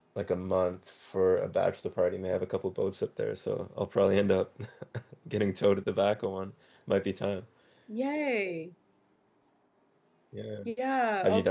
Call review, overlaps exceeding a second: none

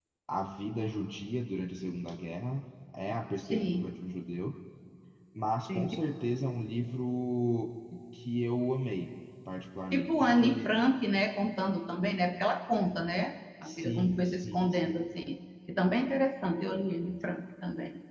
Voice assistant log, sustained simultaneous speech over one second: present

